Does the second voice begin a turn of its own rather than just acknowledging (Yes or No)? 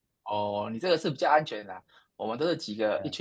No